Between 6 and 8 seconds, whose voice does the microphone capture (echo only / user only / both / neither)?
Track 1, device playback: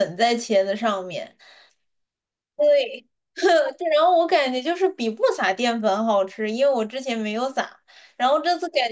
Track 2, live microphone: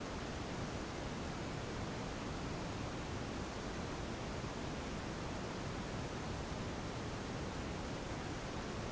neither